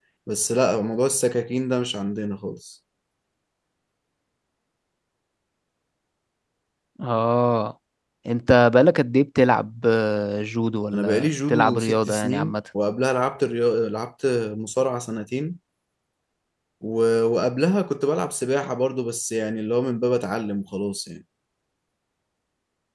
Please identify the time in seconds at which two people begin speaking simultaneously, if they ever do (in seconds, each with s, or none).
10.9 s